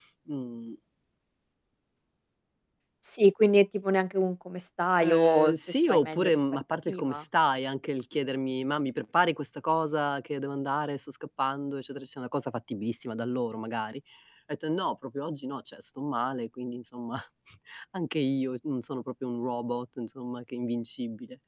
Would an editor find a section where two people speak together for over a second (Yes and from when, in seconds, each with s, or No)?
Yes, from 5.0 s